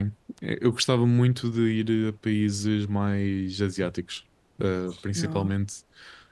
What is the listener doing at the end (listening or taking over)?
listening